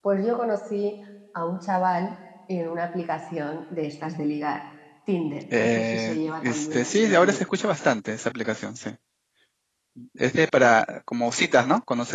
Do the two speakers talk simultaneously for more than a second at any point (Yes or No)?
Yes